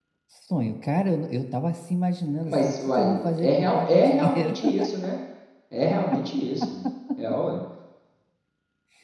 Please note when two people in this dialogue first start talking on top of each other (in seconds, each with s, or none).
2.4 s